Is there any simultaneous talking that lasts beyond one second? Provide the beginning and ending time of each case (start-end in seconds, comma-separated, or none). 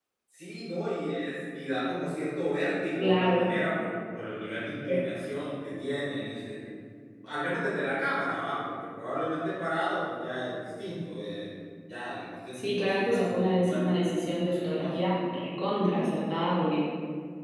12.5-14.8